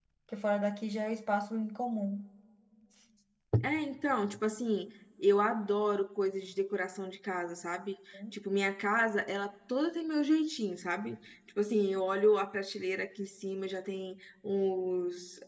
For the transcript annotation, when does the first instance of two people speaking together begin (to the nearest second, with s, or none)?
none